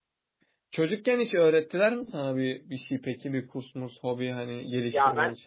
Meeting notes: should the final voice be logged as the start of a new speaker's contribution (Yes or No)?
Yes